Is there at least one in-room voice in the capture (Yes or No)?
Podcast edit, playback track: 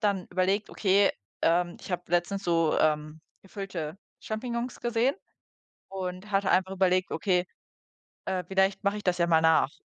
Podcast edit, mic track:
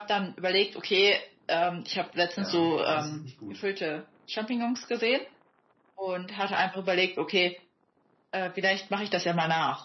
Yes